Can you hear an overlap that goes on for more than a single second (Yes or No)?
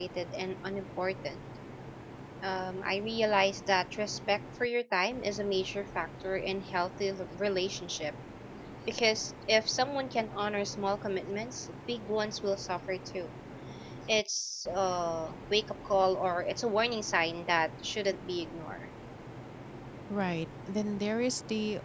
No